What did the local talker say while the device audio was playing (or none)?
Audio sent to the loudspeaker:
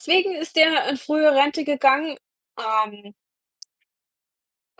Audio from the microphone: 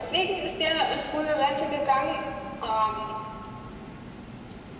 none